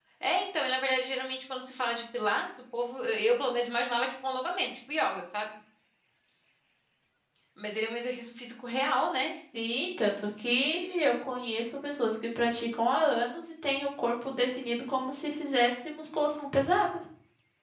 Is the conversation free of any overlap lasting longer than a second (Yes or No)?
Yes